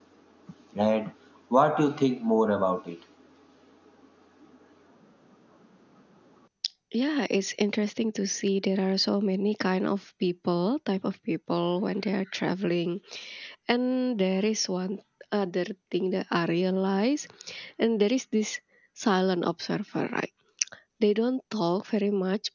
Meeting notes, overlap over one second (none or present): none